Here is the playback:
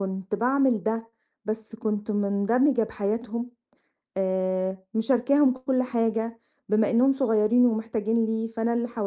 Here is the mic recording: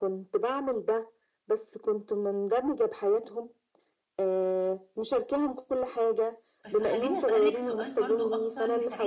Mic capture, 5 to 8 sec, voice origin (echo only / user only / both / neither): both